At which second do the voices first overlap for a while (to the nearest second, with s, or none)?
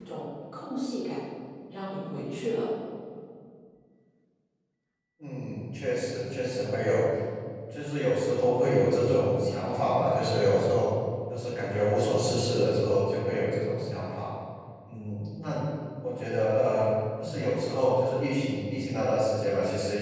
none